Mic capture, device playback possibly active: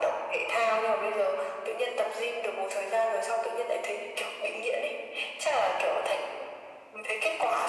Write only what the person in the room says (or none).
none